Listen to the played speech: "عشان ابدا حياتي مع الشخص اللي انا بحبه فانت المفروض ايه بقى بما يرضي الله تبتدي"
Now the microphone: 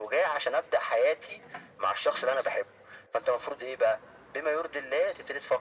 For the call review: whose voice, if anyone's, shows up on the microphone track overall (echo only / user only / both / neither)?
echo only